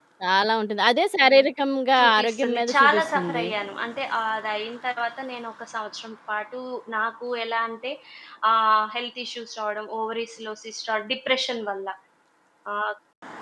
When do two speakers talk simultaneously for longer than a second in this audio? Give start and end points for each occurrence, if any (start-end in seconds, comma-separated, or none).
2.0-3.5